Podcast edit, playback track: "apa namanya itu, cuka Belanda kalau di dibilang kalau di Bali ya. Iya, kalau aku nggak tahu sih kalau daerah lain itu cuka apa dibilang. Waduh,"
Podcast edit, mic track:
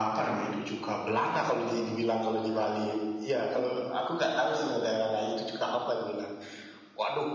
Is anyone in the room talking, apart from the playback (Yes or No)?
No